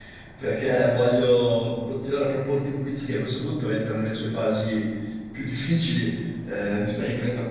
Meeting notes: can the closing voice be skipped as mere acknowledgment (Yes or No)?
Yes